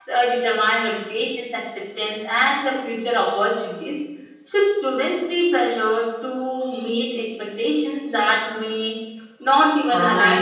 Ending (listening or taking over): taking over